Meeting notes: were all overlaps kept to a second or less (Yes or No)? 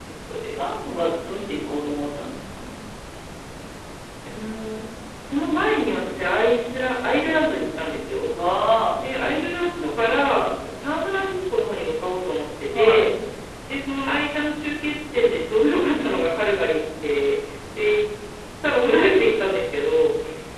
Yes